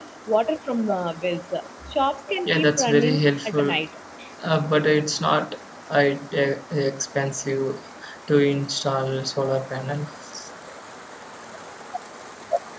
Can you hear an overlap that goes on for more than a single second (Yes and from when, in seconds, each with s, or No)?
Yes, from 2.4 s